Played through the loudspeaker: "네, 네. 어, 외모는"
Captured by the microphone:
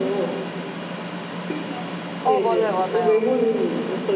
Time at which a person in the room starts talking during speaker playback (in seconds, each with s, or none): 2.2 s